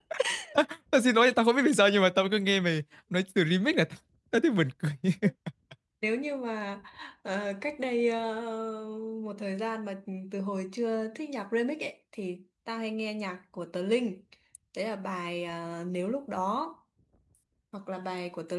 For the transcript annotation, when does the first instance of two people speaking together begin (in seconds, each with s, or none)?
none